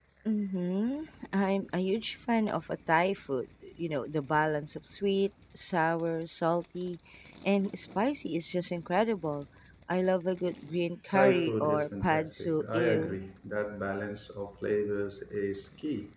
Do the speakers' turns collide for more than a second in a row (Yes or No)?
Yes